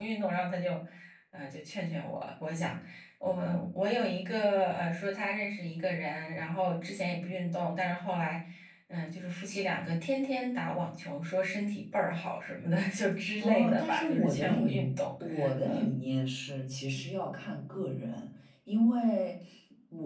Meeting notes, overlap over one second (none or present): present